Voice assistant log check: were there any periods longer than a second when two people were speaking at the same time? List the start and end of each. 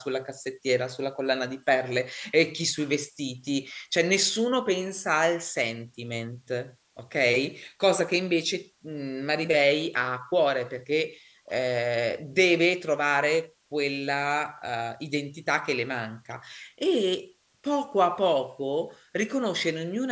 none

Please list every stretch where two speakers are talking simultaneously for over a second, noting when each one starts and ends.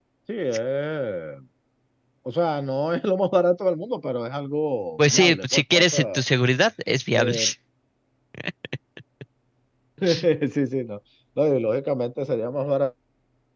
5.0-6.2

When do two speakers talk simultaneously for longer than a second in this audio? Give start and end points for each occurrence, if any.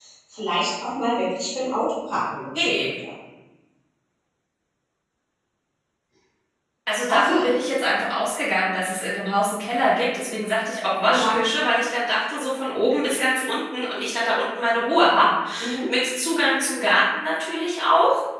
none

